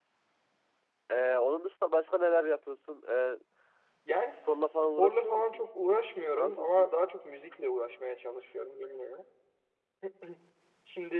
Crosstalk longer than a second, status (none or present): present